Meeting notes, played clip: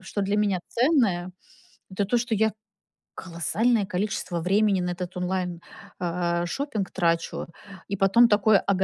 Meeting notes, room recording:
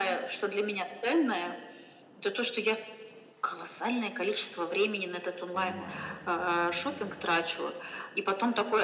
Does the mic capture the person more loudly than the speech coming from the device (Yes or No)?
No